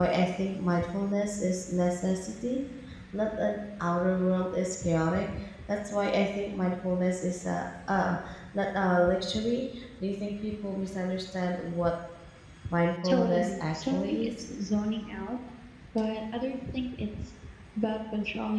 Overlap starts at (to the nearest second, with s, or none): 13 s